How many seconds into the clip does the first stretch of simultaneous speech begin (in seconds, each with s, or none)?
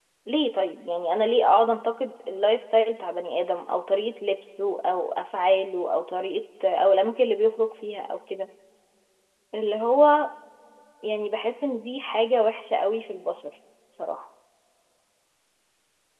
none